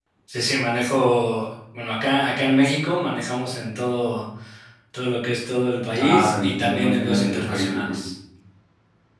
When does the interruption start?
6 s

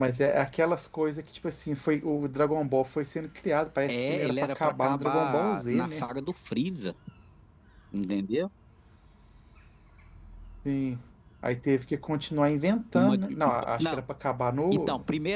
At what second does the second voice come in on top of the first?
4 s

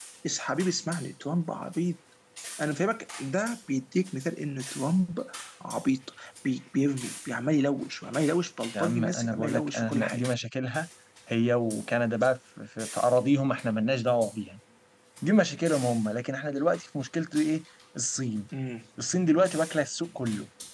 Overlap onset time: 9 s

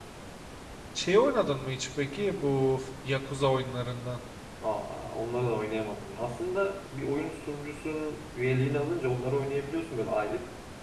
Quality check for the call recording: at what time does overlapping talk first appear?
none

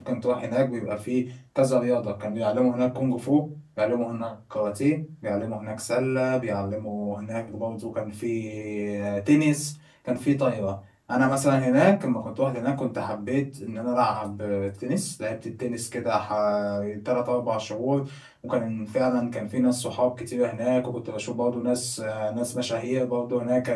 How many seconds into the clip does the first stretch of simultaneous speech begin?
none

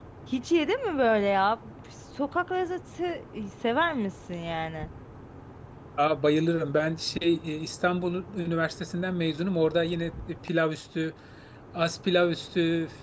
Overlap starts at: none

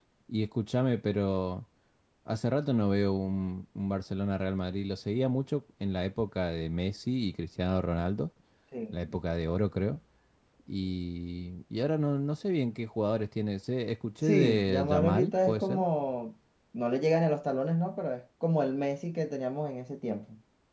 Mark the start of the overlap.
14 s

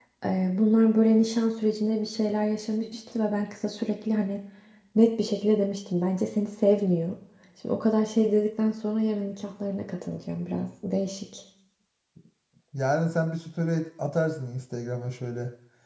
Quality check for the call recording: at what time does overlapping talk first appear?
none

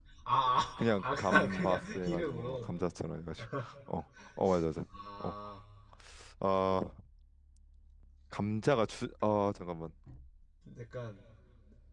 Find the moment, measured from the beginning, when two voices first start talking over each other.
1 s

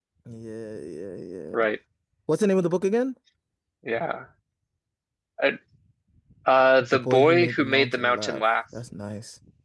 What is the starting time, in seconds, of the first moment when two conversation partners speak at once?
7 s

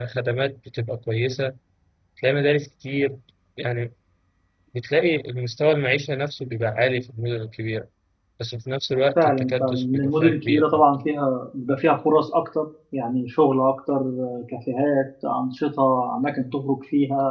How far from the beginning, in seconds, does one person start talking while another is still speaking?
9 s

